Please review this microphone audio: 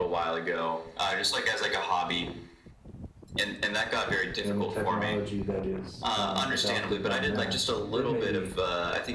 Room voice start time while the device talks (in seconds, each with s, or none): 4.4 s